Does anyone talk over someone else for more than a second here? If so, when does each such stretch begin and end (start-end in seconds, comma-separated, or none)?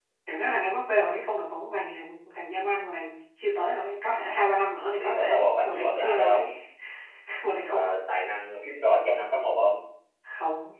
5.0-6.4